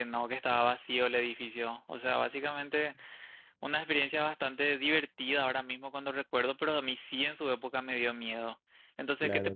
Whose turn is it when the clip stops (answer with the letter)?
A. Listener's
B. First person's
B